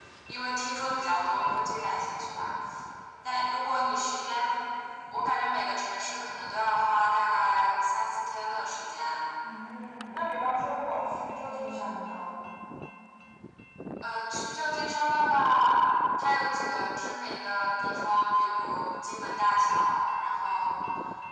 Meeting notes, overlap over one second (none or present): none